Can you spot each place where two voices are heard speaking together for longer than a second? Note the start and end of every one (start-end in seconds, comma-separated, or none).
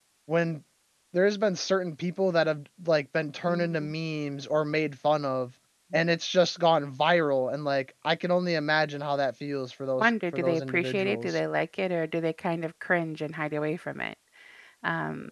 10.0-11.4